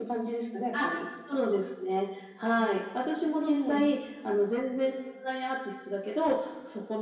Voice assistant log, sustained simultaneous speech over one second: none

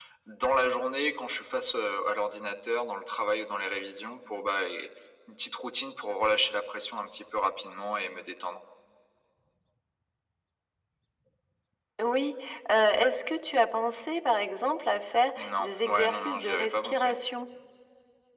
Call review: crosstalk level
present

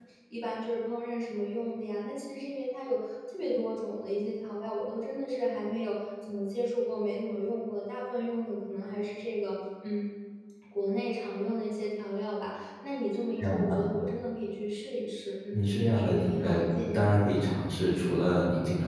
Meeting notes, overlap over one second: present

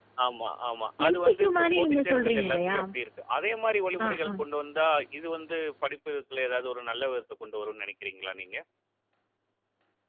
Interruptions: present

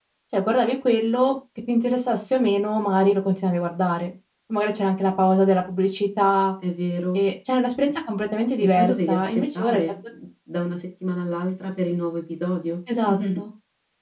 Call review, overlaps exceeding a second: present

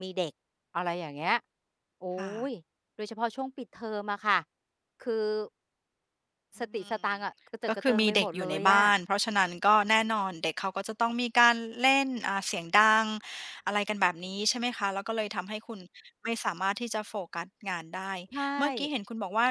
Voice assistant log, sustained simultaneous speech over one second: present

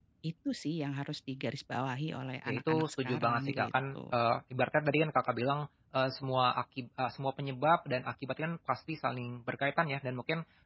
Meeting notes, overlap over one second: present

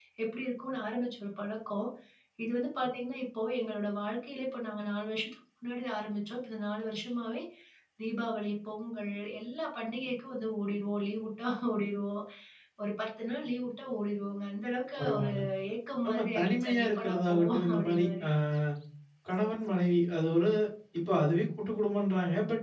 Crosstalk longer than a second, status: present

